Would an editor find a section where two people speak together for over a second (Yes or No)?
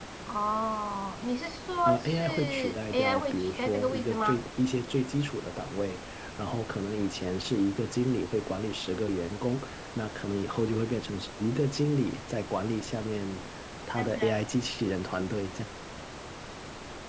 Yes